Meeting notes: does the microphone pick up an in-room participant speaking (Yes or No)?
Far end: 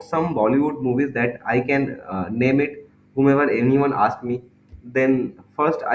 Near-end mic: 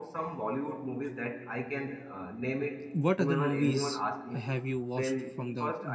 Yes